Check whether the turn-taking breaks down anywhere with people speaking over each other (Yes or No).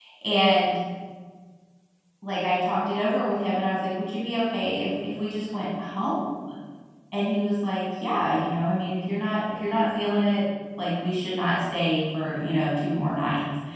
No